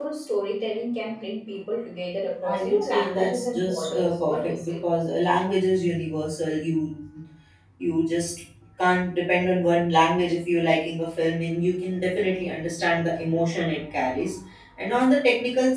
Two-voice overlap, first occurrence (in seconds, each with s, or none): 2.4 s